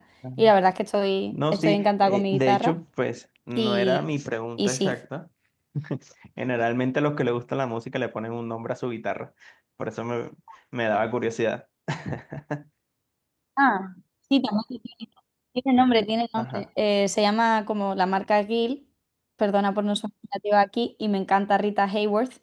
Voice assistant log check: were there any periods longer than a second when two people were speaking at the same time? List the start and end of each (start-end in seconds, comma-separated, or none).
1.3-2.7